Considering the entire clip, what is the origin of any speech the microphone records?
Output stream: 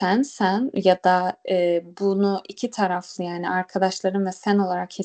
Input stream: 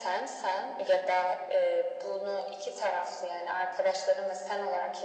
echo only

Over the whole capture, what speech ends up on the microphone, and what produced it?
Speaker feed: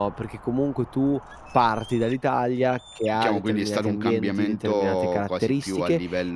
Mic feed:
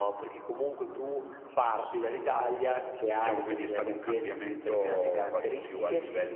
echo only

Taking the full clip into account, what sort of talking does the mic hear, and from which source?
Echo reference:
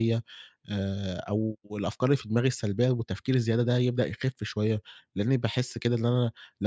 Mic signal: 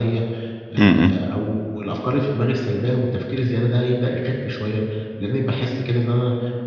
both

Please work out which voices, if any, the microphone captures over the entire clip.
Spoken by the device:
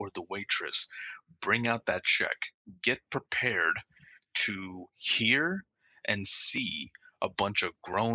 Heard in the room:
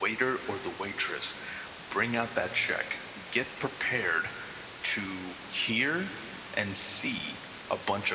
echo only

